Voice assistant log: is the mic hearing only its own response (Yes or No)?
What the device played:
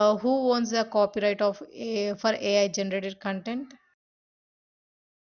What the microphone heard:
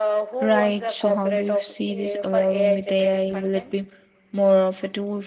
No